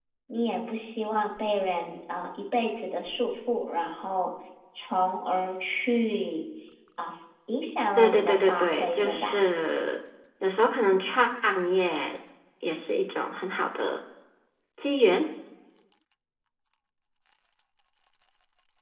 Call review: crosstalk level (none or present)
present